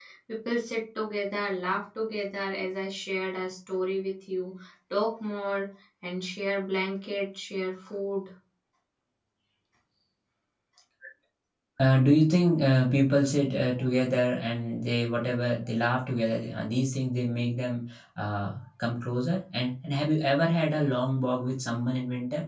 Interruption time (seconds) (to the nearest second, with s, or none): none